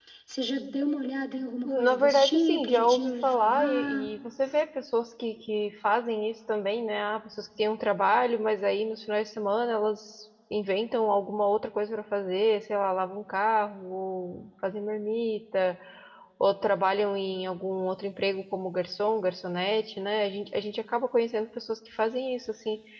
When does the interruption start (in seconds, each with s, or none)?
1.6 s